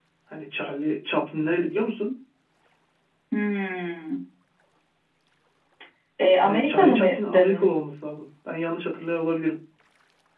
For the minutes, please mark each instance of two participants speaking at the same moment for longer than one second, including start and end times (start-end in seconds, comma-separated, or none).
6.4-7.8